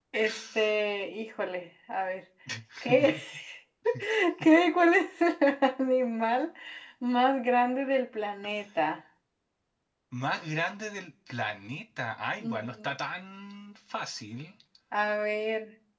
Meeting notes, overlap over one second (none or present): none